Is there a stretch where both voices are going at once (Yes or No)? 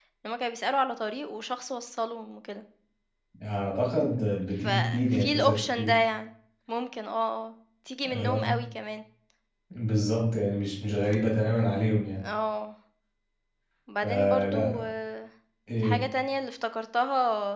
Yes